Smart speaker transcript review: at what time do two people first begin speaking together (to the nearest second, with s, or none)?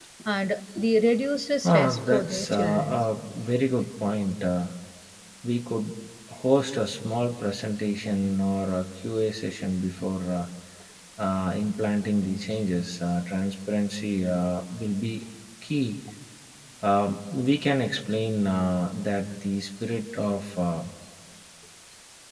2 s